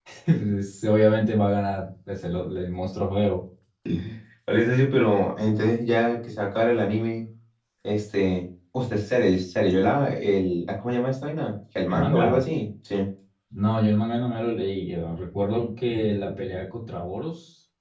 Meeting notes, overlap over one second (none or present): none